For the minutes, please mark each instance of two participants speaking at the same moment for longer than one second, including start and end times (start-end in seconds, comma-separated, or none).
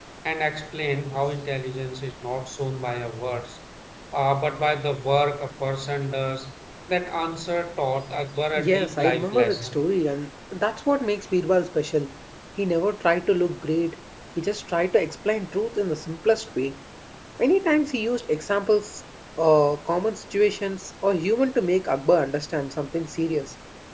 8.5-9.8